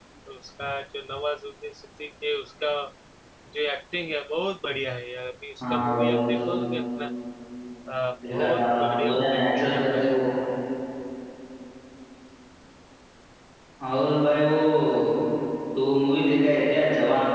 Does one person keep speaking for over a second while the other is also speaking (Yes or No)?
Yes